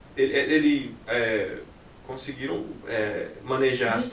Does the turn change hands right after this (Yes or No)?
No